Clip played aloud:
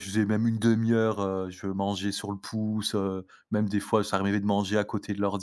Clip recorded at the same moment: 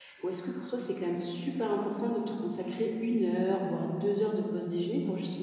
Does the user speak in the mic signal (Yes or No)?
Yes